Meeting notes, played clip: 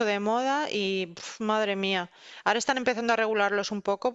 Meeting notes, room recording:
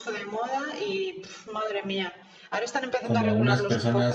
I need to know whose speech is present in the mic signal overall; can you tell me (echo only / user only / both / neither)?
both